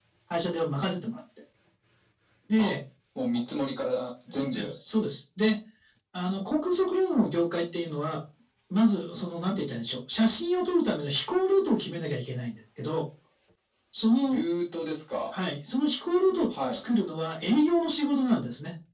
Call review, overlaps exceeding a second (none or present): none